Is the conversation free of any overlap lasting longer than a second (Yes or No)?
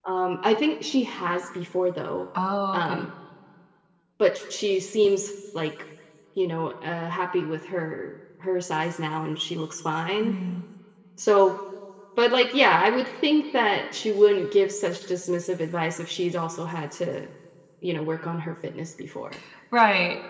Yes